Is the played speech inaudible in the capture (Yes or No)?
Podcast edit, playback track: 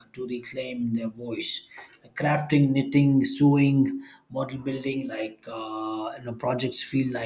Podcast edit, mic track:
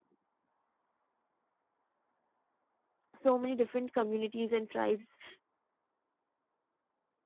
Yes